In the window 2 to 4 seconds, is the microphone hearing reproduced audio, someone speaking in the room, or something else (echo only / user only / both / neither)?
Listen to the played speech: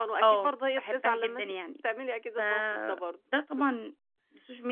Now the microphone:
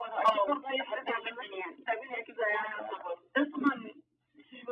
echo only